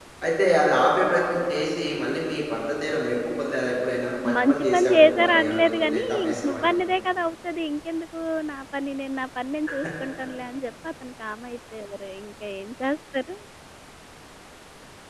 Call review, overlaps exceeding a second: present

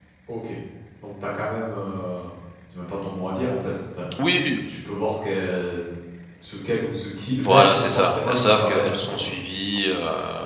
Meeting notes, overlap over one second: present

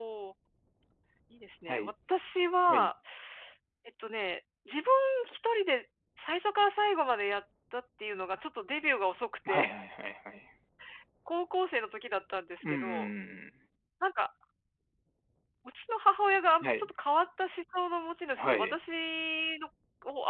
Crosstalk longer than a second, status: none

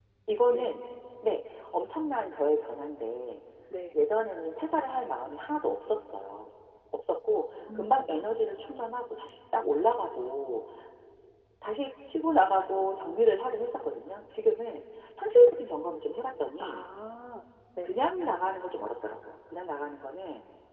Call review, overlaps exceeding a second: none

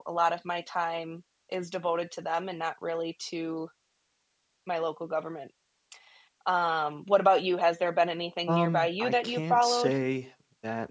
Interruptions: present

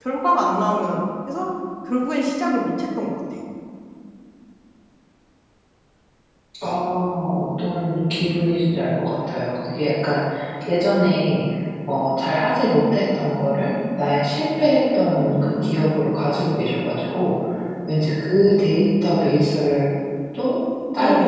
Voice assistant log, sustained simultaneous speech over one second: none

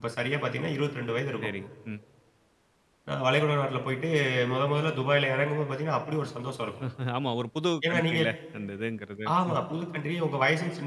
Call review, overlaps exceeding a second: none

